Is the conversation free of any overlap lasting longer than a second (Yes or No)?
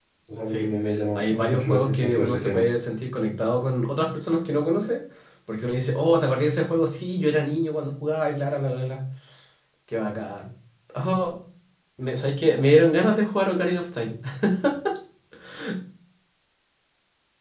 No